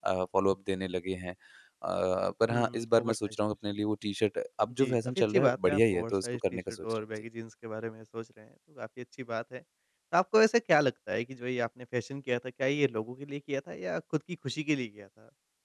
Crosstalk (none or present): present